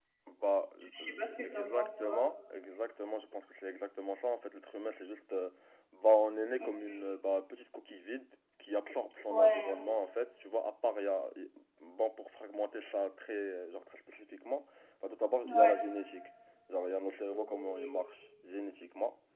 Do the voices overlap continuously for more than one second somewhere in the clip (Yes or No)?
Yes